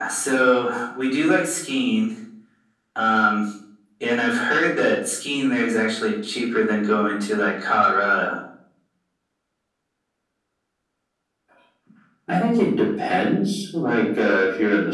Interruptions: none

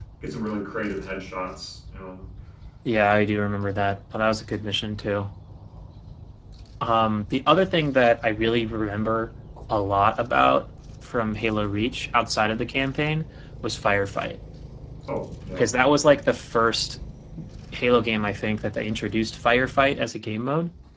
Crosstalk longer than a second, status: none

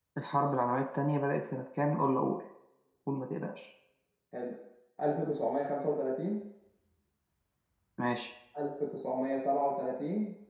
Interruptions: none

